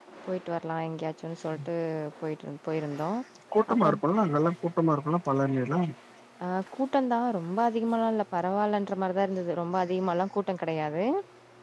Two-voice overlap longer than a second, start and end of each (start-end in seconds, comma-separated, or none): none